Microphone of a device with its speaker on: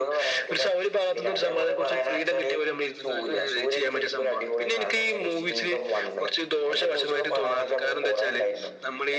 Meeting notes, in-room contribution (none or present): none